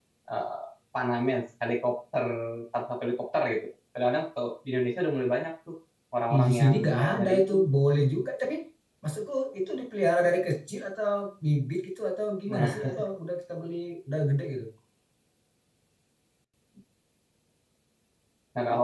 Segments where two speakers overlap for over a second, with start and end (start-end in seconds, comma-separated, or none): 6.3-7.5